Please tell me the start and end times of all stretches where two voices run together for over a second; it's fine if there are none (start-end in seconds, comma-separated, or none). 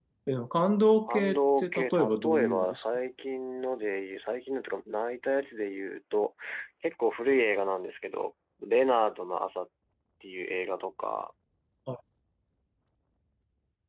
1.1-2.8